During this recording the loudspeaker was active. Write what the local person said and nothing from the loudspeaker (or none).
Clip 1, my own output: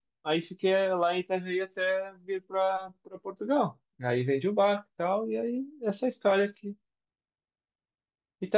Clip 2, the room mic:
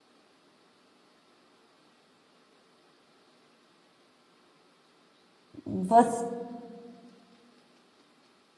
Você,